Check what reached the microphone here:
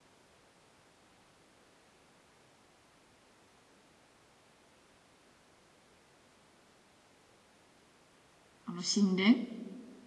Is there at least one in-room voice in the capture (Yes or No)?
Yes